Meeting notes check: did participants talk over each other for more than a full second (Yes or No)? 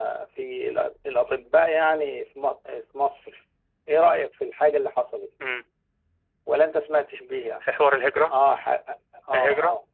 No